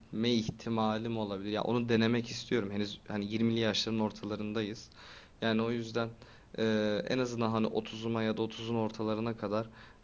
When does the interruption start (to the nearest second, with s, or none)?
none